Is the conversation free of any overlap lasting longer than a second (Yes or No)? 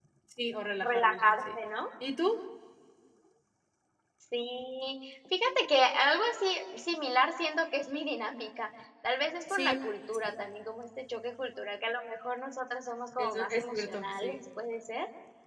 No